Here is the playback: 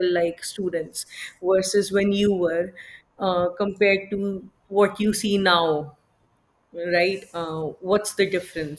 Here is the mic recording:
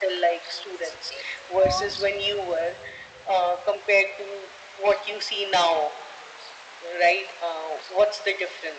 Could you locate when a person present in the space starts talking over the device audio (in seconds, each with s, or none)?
0.8 s